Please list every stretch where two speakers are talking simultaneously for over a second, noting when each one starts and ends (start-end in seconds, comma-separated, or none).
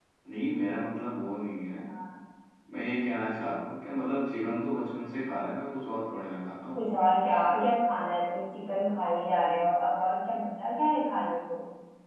none